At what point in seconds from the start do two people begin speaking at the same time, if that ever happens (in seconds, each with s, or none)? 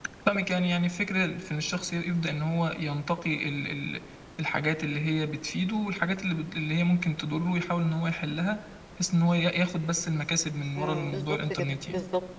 10.8 s